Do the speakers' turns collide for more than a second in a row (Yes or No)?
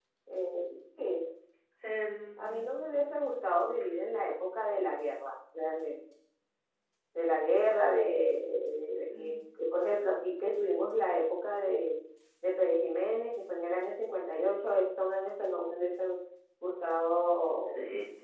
No